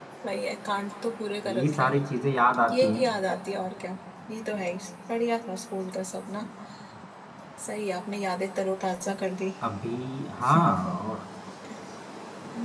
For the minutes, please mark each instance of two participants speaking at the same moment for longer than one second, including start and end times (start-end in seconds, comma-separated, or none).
none